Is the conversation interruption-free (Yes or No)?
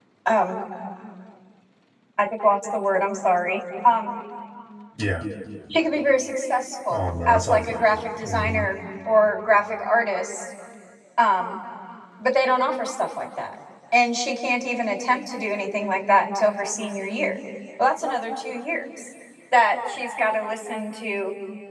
No